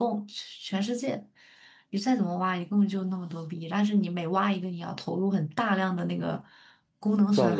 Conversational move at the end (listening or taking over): listening